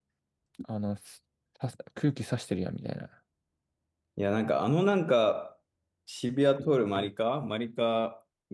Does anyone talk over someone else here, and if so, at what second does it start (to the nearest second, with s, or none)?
none